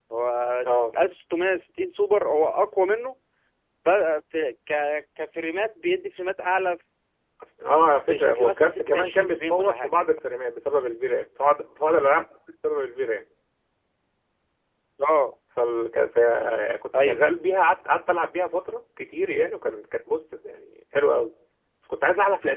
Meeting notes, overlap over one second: present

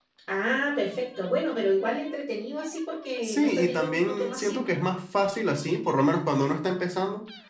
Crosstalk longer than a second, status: present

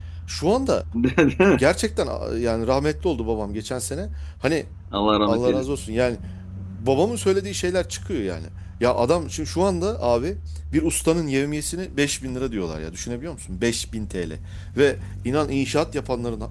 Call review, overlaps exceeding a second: none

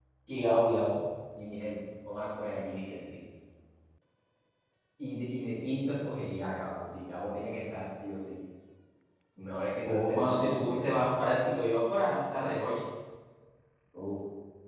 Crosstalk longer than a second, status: present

